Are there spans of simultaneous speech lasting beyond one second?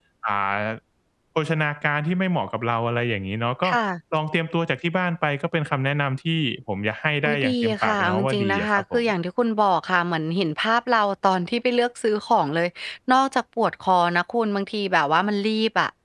Yes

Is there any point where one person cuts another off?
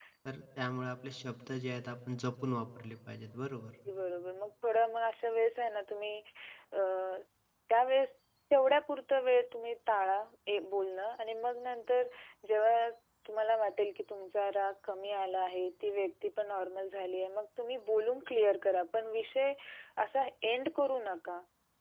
No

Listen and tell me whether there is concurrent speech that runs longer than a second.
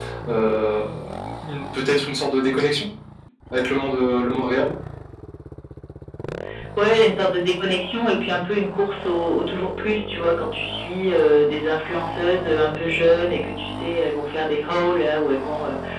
No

